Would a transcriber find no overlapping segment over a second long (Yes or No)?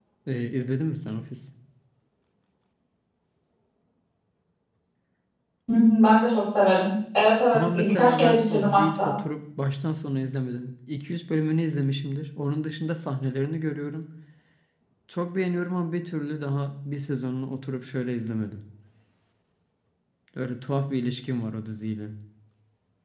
No